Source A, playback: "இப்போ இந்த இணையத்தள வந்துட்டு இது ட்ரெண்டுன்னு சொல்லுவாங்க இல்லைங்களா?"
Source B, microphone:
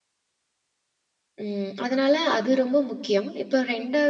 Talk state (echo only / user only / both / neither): user only